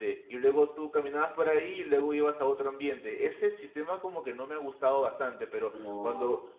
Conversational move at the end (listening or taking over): listening